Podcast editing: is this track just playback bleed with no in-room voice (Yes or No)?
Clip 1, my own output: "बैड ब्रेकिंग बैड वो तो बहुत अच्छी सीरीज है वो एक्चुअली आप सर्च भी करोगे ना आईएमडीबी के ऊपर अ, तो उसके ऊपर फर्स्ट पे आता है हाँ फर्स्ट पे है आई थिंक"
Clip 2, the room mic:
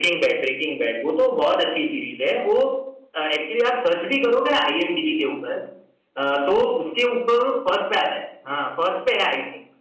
Yes